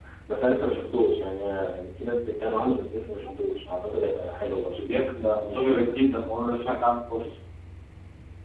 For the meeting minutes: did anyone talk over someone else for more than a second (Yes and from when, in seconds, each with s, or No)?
No